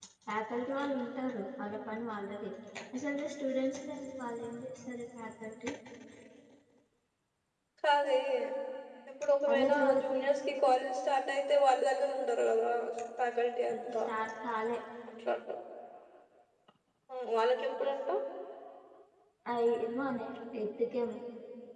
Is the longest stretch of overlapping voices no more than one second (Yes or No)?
Yes